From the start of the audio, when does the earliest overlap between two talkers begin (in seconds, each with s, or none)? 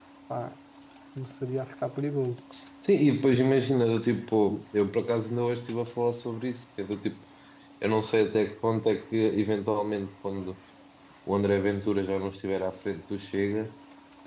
none